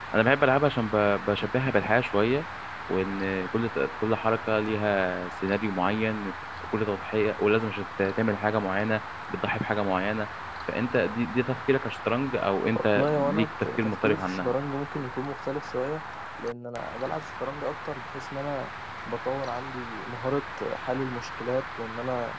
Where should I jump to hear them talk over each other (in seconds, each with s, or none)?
12.9 s